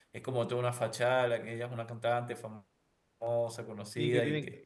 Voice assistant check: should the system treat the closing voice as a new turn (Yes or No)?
Yes